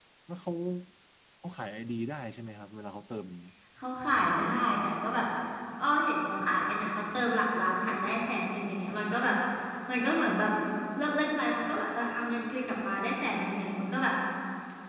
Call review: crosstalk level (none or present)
none